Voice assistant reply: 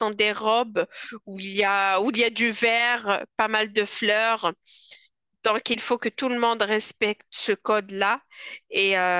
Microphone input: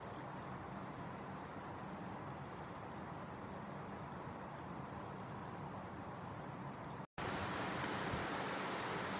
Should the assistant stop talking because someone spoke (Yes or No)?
No